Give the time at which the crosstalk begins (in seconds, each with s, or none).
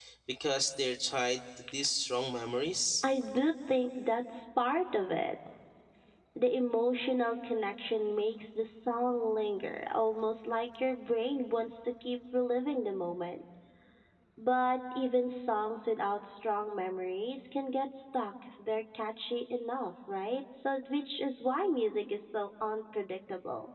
none